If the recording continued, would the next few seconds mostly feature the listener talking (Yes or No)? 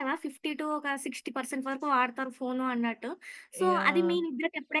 No